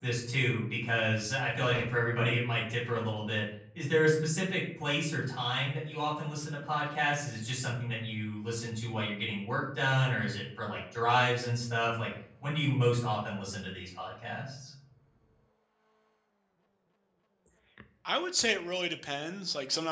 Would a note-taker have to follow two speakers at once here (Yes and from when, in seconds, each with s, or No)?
No